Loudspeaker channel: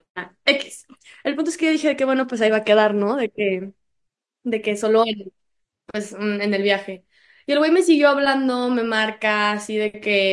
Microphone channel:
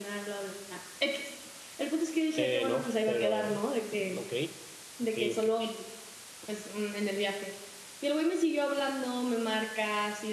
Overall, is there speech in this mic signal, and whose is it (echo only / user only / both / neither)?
both